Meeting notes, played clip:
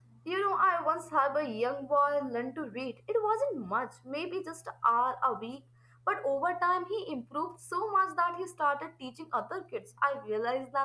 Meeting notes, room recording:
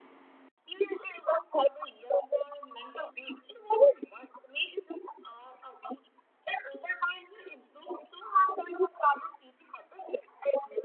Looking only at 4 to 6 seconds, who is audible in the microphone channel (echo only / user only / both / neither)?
echo only